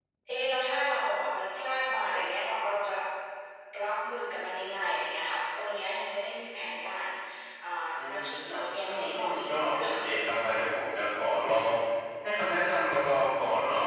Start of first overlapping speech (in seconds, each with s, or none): 8.0 s